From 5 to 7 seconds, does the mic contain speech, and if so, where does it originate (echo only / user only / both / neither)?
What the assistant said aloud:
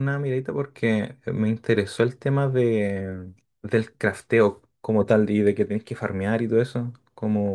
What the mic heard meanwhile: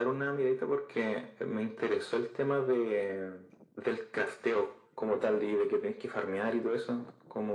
echo only